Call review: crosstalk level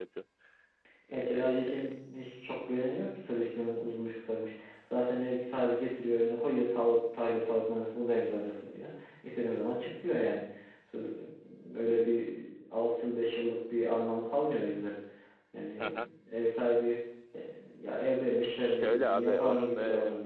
present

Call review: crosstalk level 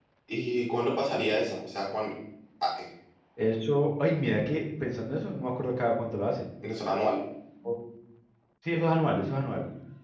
none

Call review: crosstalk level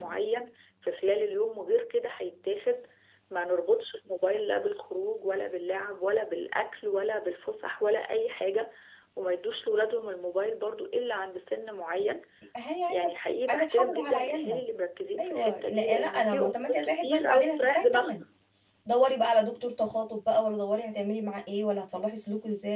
present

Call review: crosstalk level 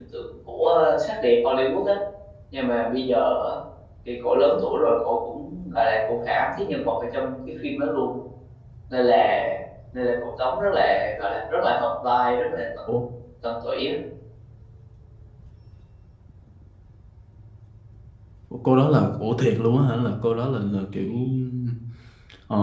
none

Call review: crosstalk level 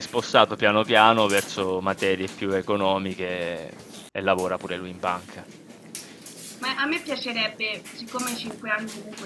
none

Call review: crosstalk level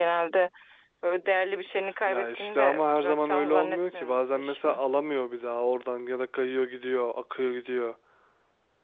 present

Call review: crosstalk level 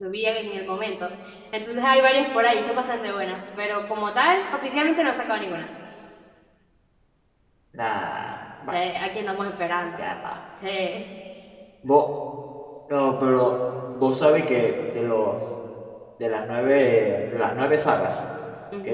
none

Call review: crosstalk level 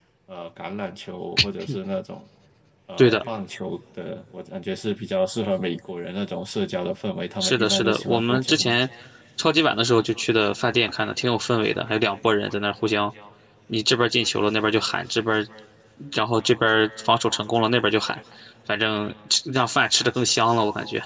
present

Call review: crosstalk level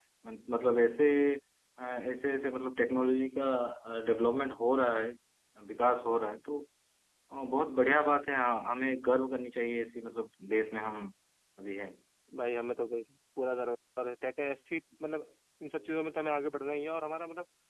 none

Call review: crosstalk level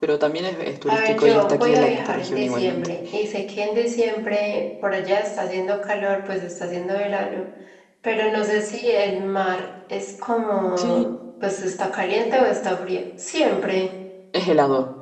present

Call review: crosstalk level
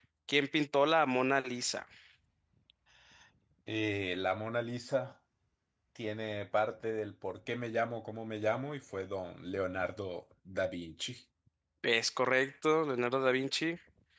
none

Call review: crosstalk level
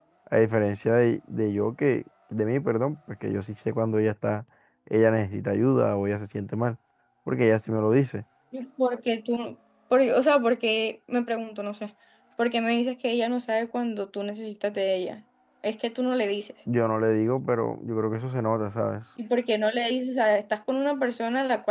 none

